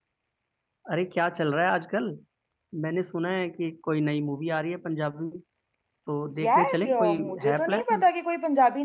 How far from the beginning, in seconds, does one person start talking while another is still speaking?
6 s

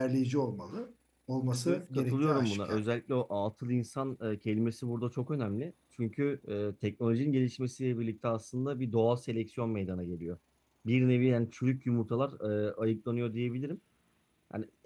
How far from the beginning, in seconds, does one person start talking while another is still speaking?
2 s

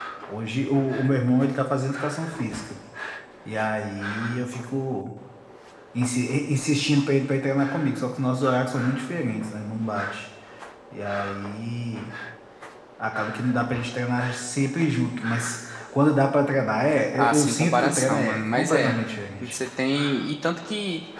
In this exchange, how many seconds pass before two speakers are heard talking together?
17 s

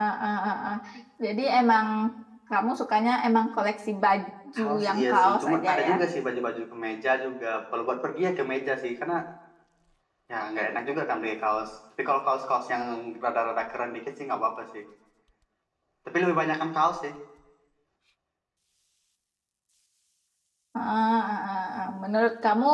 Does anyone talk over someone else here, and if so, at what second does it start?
5 s

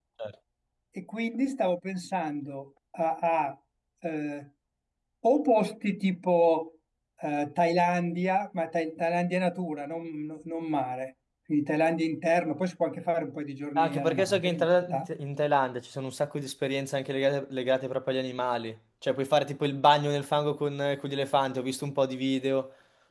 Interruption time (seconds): 14 s

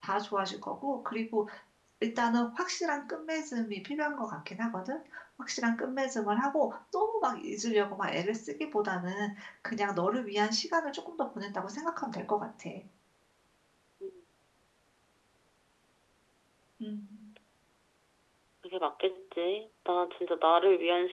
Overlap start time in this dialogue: none

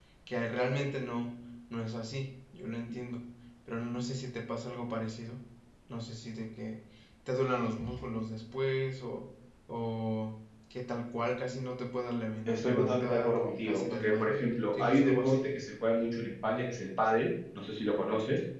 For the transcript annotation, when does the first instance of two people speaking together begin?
12 s

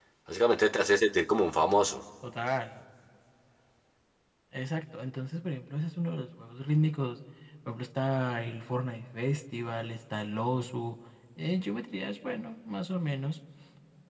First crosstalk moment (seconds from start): none

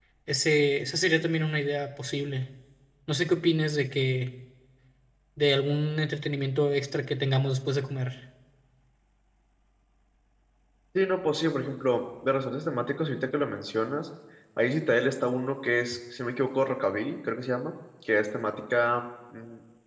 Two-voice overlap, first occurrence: none

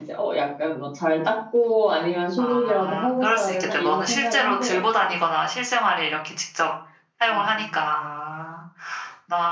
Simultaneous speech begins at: 2 s

